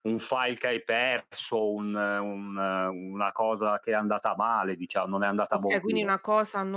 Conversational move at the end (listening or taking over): taking over